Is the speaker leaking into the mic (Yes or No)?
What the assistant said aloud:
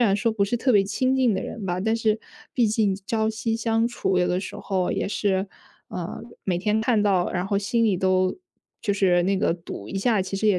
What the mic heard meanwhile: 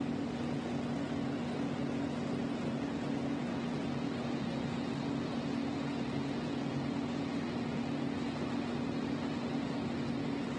No